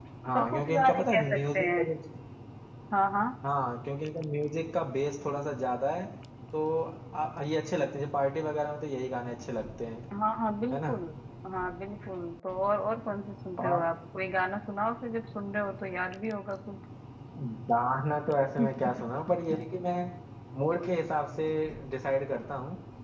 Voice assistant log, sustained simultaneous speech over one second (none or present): present